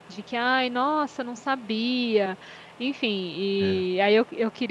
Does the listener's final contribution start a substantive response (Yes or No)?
No